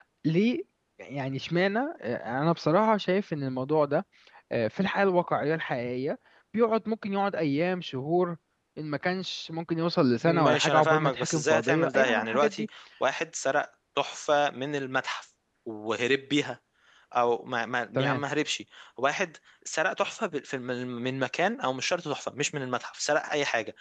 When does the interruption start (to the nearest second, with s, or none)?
10 s